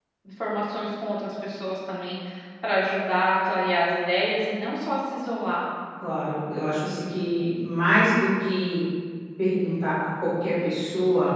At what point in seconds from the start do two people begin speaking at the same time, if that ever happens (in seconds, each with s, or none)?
none